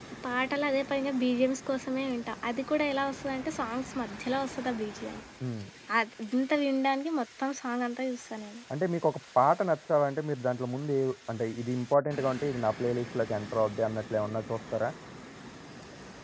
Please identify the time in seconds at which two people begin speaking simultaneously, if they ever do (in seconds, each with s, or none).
none